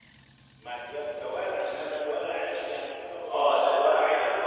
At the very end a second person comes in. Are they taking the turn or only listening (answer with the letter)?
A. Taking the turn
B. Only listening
A